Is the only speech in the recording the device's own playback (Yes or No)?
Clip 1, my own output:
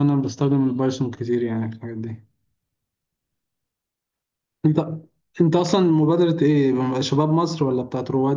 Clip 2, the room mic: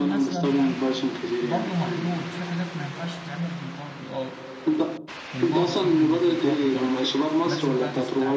No